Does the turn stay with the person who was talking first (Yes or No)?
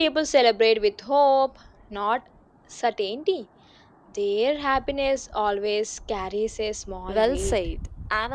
No